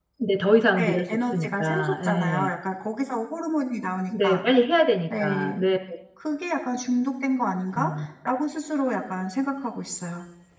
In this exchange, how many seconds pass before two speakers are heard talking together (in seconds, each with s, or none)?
0.8 s